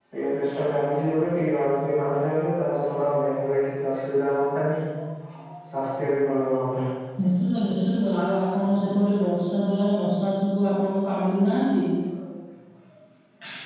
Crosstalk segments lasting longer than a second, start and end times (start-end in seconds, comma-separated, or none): none